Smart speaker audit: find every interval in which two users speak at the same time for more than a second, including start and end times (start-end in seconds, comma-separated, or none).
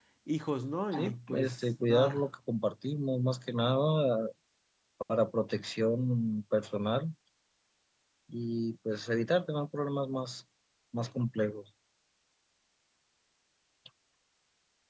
0.9-2.3